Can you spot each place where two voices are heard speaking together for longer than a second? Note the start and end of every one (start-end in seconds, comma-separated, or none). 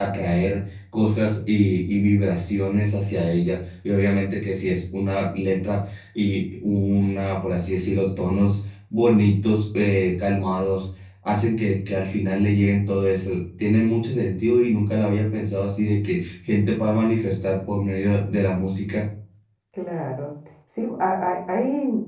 none